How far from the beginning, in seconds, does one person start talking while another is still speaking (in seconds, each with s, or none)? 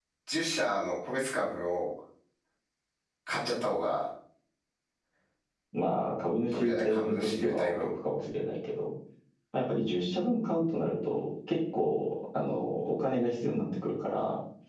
6.5 s